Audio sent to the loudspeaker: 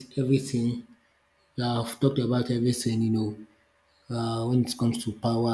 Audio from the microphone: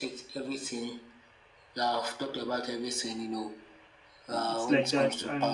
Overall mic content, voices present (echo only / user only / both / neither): both